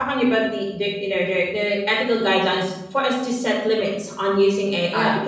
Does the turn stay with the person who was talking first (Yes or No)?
Yes